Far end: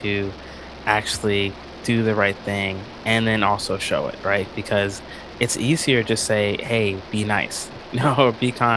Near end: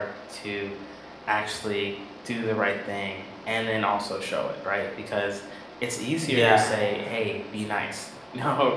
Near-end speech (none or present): present